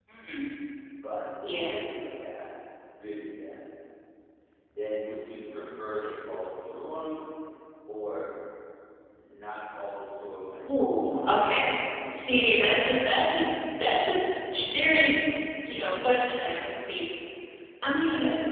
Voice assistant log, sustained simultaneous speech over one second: present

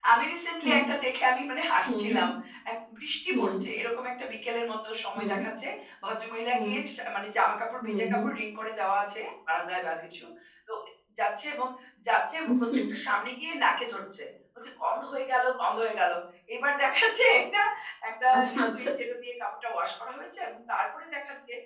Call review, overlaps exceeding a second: none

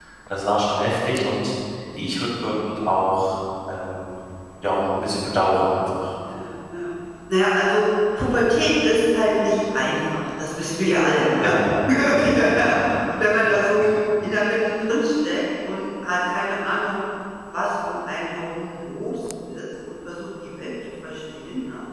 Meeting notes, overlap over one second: none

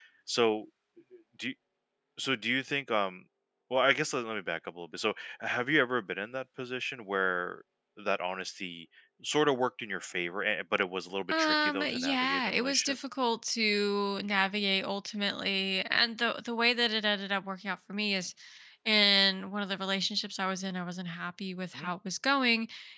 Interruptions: present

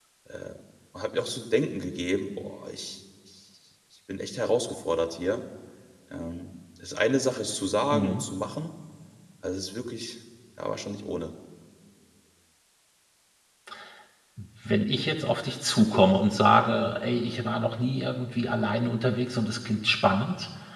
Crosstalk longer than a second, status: none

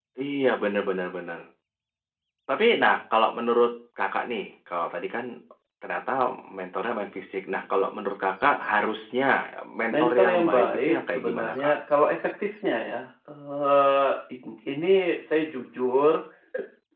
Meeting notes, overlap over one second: present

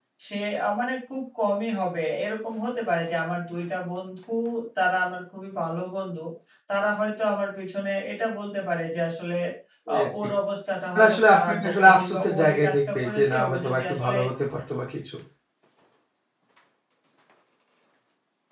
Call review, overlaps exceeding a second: present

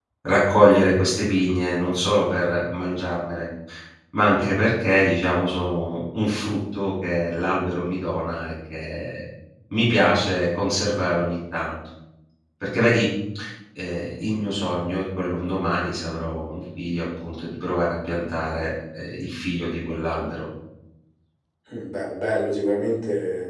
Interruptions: none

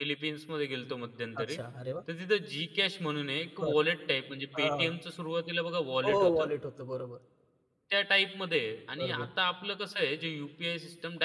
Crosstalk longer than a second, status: none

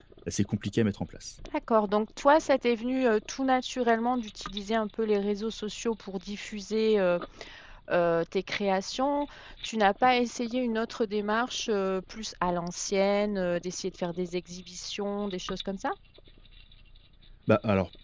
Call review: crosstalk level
none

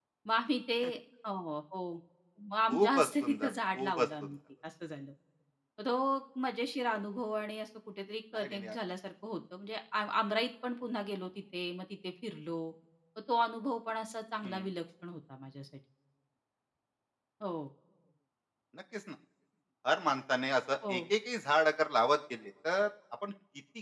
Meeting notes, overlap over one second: present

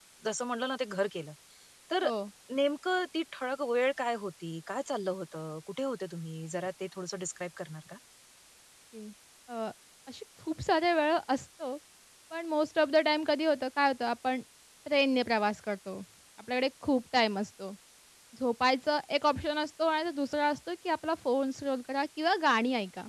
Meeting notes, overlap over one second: none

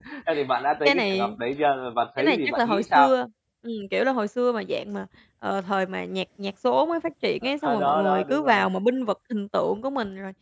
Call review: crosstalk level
present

